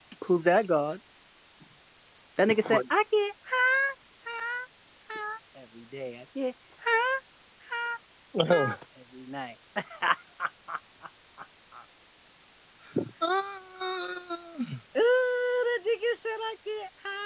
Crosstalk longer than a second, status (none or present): none